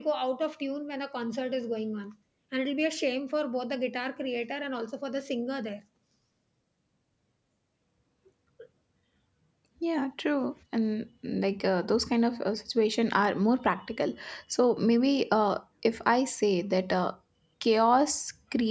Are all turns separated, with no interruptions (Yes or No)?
Yes